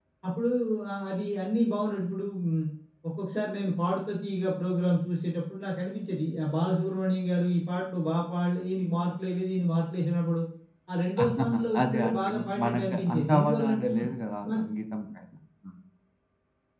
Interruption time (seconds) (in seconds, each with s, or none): 11.4 s